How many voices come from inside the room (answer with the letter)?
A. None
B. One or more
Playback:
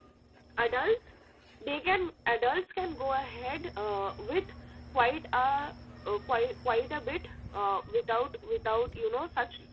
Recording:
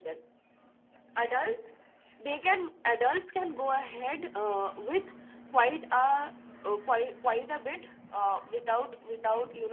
A